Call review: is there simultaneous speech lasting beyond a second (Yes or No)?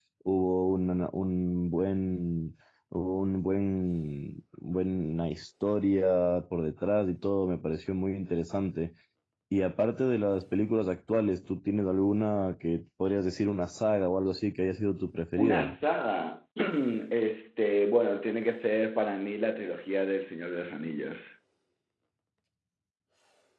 No